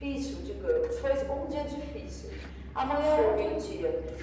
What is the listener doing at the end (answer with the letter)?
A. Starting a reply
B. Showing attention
B